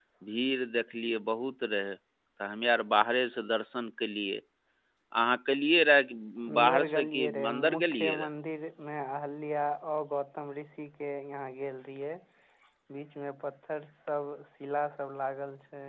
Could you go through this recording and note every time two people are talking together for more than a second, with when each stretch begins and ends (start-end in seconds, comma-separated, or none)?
6.6-8.3